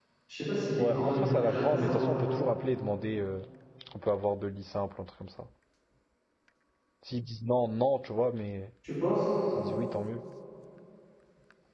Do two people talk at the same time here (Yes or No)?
Yes